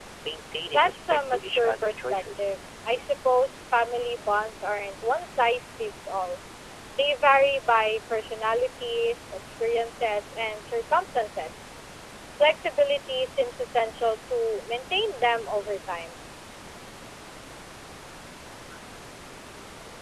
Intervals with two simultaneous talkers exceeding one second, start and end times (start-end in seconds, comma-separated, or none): 0.6-2.5